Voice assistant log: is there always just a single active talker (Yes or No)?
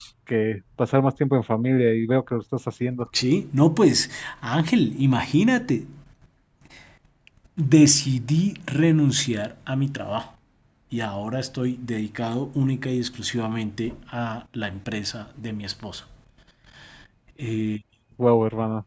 Yes